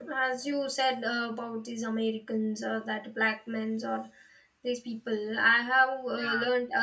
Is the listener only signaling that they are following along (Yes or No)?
Yes